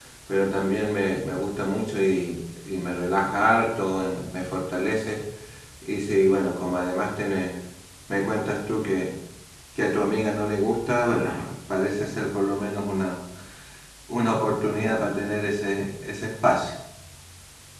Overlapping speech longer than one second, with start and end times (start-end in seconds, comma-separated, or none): none